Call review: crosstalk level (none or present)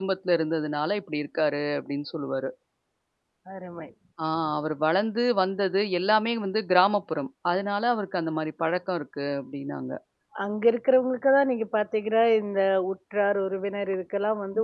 none